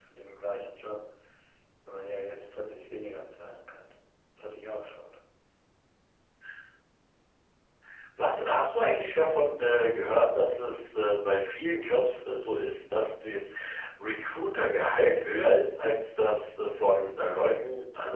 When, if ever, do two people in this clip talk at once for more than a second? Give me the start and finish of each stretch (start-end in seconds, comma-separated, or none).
none